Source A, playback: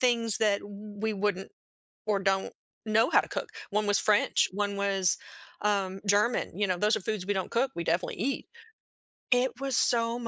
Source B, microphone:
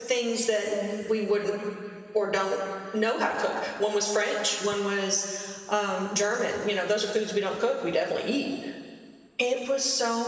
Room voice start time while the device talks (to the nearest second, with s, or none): none